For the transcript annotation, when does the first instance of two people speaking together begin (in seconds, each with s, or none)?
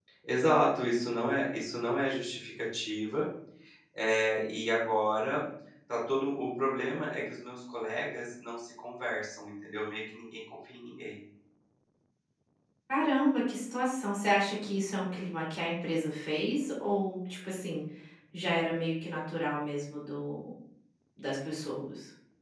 none